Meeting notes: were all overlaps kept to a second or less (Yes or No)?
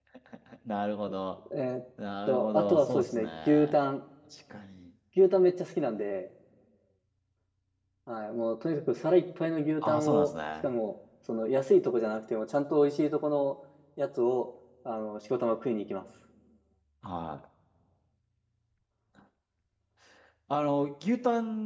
No